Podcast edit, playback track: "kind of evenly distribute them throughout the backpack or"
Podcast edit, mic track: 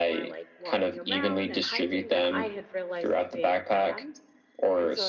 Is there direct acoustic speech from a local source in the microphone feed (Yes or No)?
Yes